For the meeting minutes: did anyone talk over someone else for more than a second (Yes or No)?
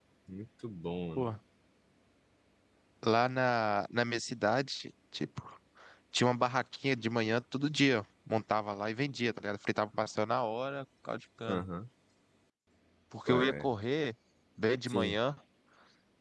No